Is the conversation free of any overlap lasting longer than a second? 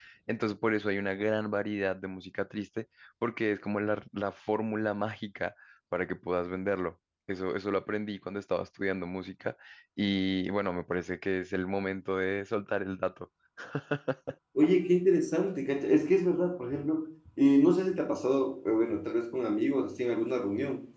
Yes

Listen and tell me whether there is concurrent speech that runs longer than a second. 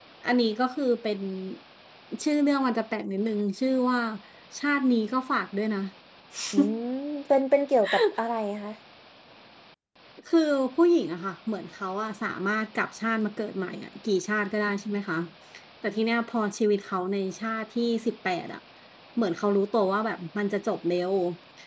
No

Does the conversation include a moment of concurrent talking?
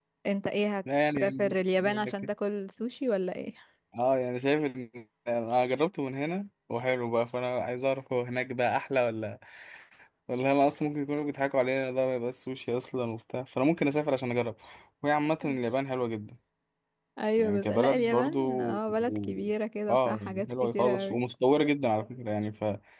Yes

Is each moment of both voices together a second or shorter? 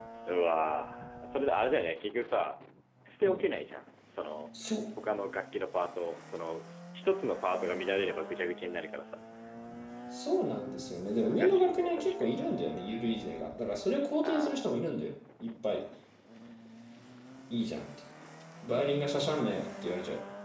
No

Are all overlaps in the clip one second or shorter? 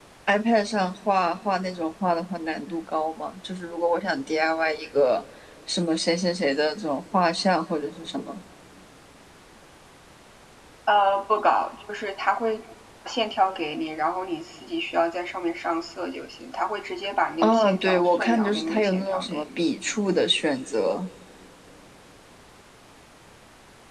No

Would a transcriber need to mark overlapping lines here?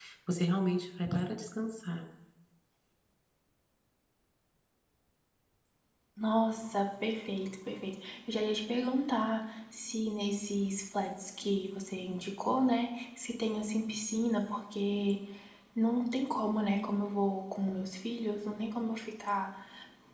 No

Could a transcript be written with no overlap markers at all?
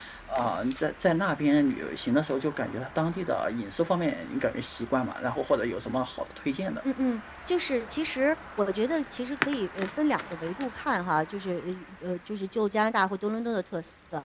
Yes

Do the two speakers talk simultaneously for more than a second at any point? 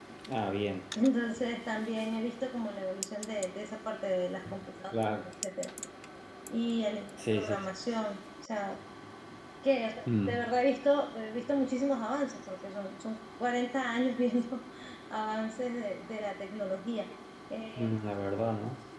No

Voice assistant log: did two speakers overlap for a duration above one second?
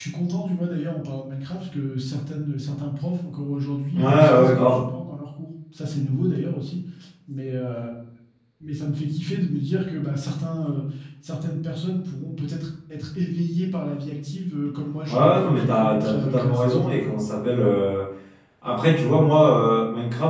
Yes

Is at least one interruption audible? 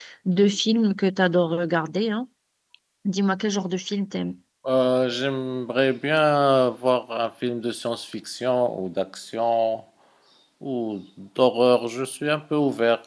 No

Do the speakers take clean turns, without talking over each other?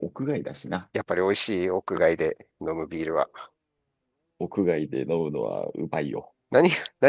Yes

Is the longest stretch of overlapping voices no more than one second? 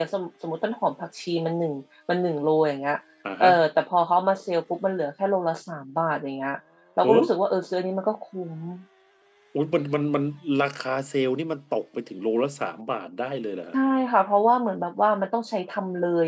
Yes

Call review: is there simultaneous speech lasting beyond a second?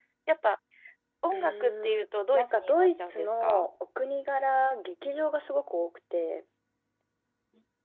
Yes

